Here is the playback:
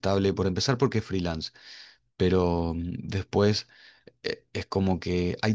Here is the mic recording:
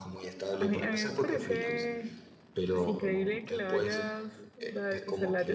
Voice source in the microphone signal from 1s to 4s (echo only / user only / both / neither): both